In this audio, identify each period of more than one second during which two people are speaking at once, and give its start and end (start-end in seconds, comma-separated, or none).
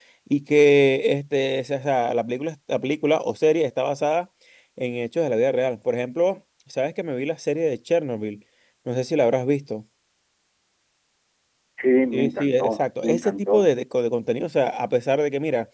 12.1-13.6